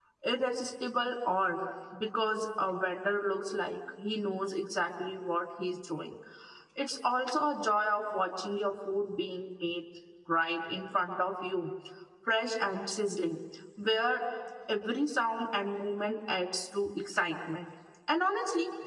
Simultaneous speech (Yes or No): No